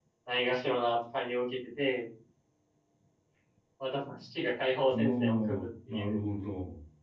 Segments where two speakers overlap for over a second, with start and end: 4.9-6.2

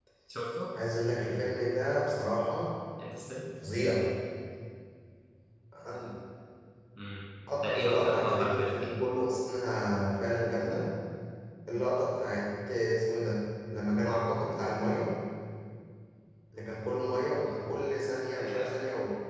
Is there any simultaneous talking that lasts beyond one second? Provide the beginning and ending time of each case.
7.6-8.9

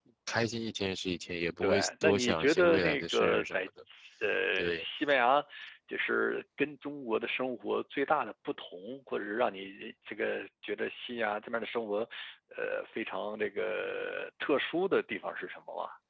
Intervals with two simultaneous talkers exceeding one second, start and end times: 1.6-3.6

